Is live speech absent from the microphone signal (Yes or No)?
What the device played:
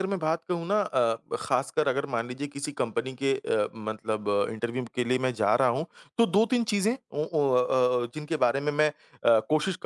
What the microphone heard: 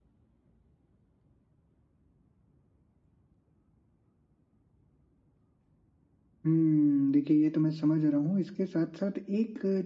No